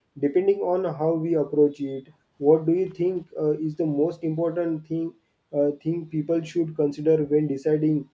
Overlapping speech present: No

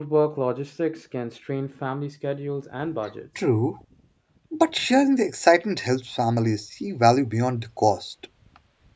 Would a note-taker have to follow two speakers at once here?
No

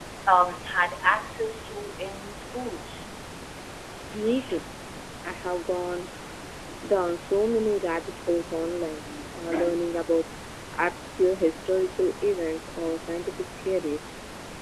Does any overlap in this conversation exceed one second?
No

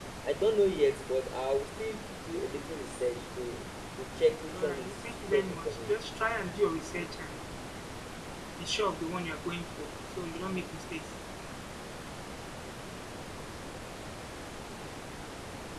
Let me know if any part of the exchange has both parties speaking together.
Yes, from 4.5 s

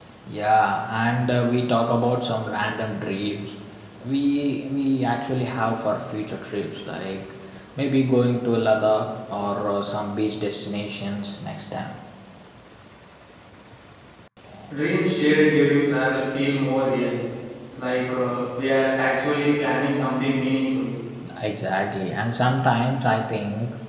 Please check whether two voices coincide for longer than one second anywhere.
No

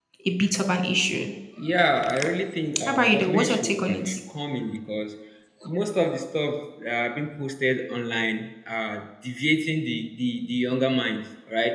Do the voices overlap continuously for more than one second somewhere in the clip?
Yes, from 2.9 s

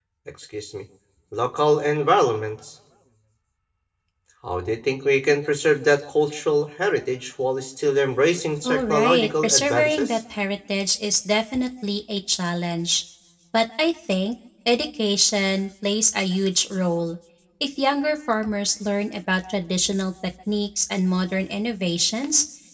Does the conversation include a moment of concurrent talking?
Yes, from 8.6 s

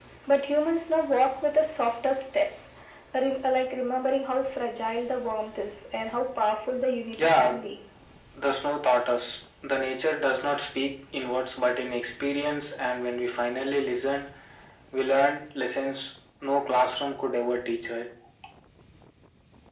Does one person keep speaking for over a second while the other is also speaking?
No

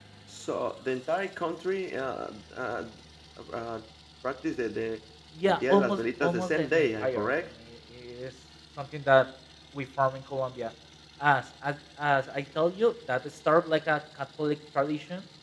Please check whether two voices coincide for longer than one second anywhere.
Yes, from 5.5 s

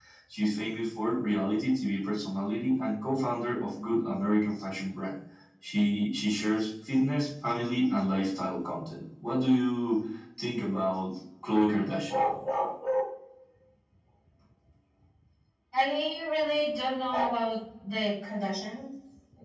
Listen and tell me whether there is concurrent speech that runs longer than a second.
No

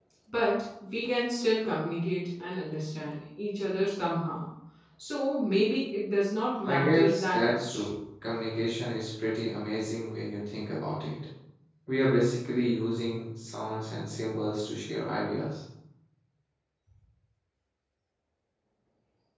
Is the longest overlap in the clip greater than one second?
Yes, from 6.6 s

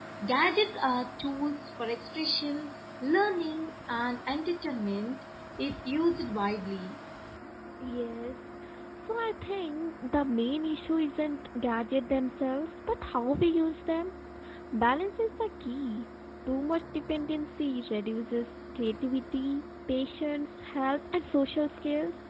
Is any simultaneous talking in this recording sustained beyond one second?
No

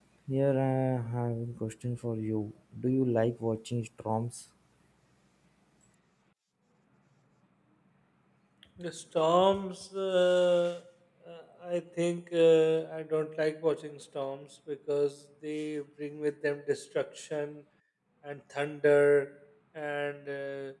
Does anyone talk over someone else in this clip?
No

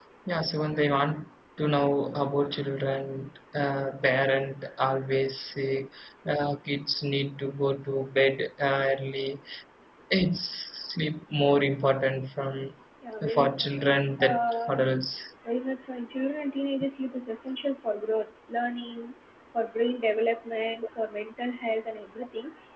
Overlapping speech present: Yes, from 13.3 s

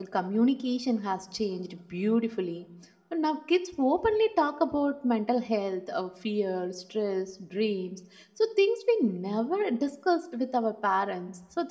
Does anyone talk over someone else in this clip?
No

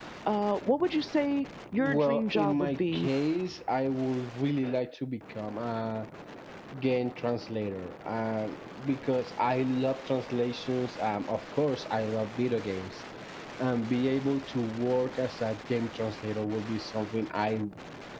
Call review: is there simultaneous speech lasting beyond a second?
Yes, from 1.8 s

